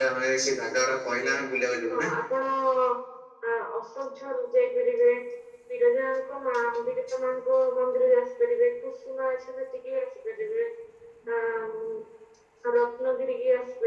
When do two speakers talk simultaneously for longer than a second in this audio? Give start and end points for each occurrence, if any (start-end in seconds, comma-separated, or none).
none